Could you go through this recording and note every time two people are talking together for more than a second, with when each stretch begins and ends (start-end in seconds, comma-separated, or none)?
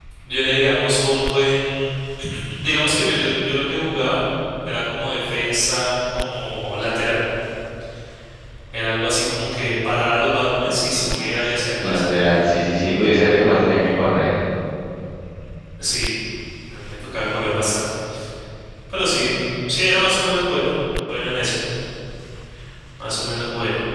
none